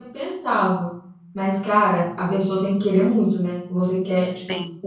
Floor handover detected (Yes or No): No